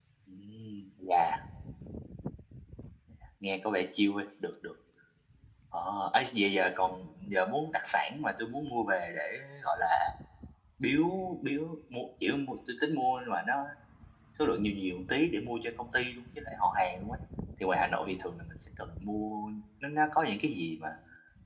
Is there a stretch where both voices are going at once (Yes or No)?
No